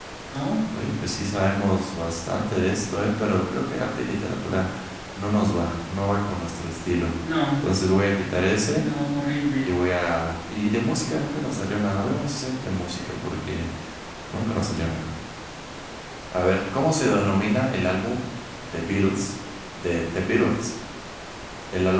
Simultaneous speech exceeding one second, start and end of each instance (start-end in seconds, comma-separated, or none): none